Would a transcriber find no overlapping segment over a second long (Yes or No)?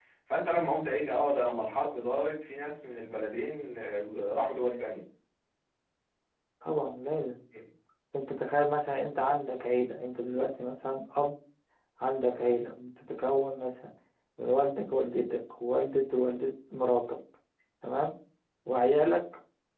Yes